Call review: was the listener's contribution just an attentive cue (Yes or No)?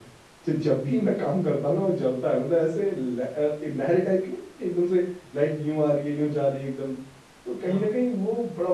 Yes